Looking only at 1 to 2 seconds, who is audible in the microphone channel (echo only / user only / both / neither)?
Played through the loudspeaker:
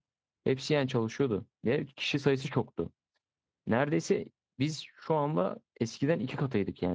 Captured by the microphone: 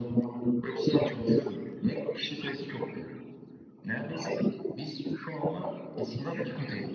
echo only